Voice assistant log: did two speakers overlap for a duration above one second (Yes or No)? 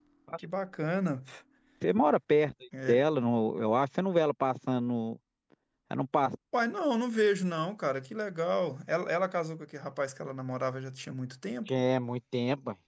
No